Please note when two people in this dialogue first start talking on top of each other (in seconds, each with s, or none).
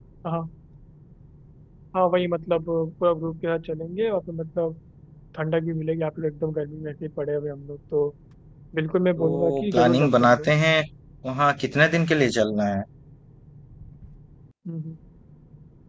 9.2 s